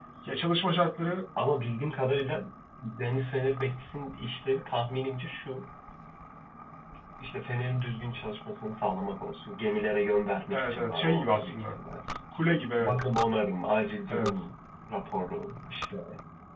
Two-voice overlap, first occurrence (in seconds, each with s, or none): 10.5 s